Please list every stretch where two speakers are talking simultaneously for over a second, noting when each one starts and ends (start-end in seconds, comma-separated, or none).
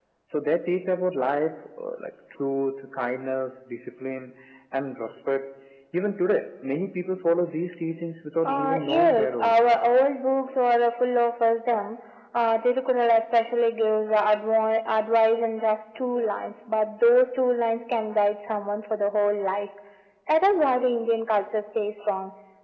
8.4-9.7